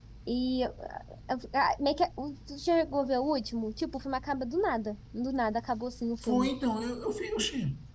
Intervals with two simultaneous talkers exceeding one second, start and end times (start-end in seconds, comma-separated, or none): none